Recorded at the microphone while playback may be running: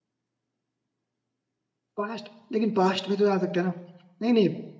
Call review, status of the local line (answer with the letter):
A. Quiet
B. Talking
B